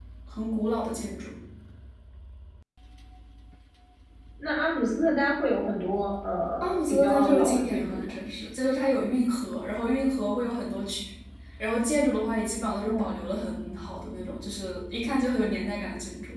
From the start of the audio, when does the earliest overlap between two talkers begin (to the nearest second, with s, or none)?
7 s